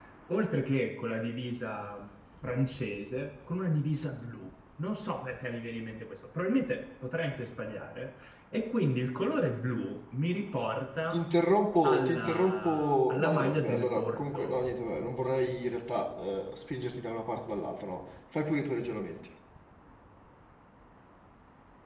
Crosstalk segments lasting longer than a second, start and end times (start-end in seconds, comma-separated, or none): 11.8-14.6